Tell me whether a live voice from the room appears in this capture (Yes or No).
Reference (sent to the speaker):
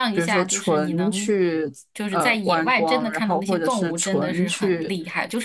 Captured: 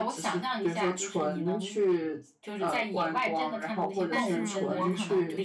Yes